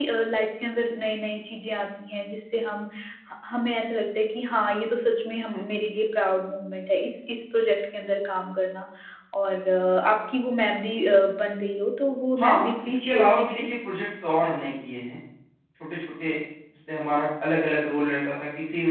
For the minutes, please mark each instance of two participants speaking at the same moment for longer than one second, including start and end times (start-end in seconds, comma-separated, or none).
12.4-13.7